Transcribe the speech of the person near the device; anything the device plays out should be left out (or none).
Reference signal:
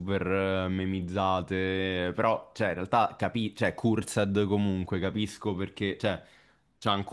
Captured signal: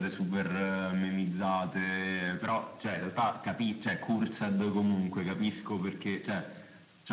none